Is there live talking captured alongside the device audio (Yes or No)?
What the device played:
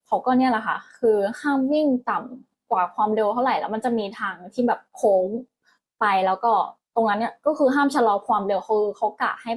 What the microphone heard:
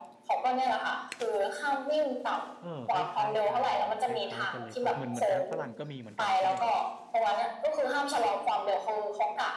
Yes